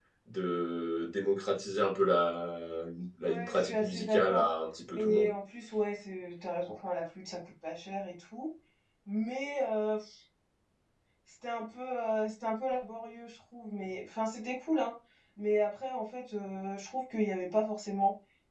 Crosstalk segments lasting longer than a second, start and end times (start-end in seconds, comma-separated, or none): 3.2-4.5